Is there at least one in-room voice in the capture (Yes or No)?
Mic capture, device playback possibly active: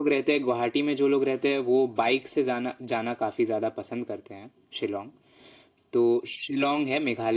No